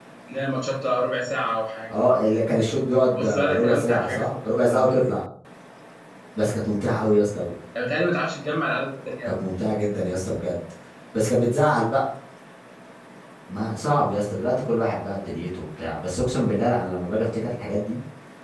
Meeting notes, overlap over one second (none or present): present